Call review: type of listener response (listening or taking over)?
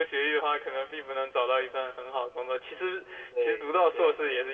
listening